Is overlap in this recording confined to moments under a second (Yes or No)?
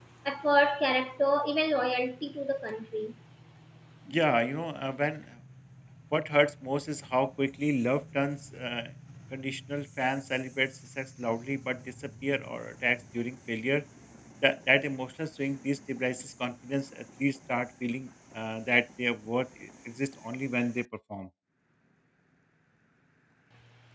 Yes